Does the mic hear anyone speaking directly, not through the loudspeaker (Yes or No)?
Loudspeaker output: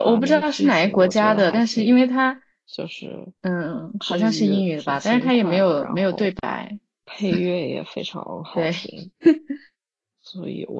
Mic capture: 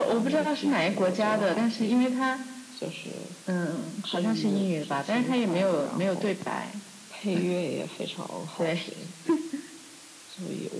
No